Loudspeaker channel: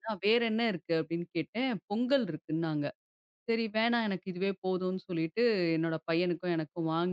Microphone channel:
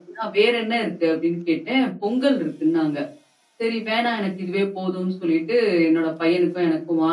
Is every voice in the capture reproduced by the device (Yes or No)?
Yes